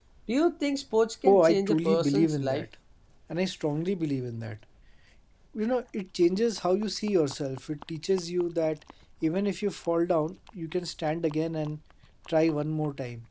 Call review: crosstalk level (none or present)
present